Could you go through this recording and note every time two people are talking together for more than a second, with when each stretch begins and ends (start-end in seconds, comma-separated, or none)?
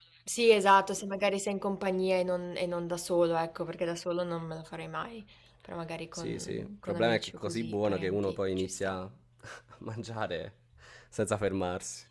6.1-9.0